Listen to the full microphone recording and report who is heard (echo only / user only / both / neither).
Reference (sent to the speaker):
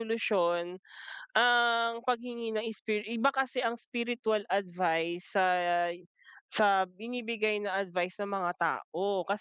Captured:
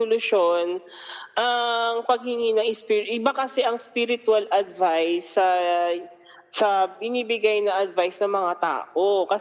echo only